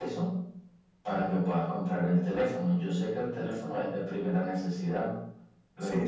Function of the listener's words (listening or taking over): taking over